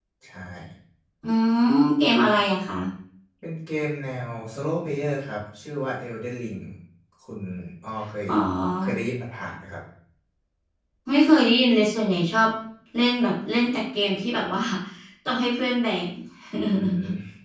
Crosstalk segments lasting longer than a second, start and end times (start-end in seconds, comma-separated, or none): none